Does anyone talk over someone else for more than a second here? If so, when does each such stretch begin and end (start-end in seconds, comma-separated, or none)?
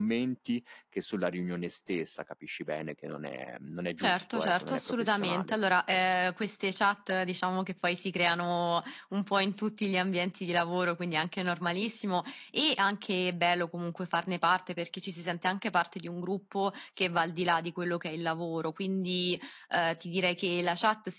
4.0-5.6